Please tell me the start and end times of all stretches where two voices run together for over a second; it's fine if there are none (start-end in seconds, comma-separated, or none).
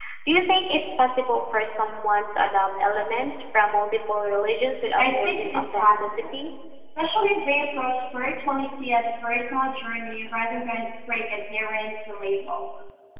5.0-6.3